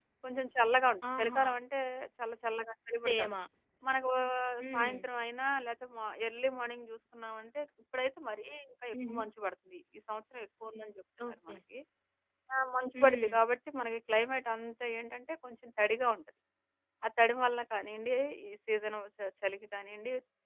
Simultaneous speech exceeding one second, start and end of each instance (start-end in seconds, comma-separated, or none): none